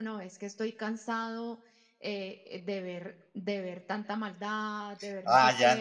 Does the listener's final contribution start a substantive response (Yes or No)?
Yes